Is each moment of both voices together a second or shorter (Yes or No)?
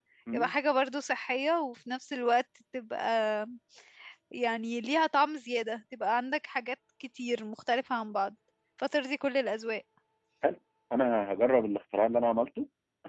Yes